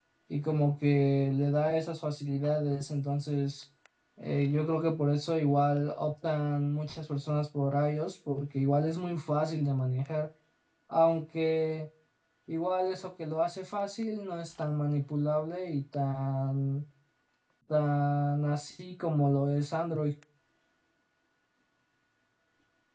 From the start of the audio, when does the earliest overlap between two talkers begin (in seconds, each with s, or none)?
none